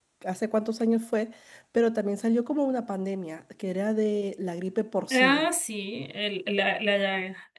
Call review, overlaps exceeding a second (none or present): none